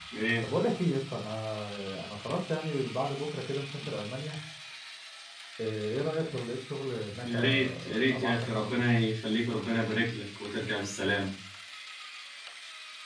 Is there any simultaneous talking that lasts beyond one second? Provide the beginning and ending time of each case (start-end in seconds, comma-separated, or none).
7.2-8.7